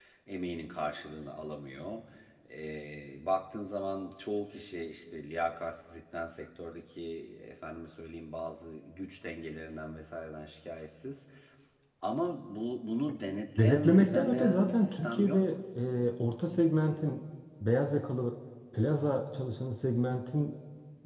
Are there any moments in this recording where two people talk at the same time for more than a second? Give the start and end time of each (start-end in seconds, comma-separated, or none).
13.6-15.4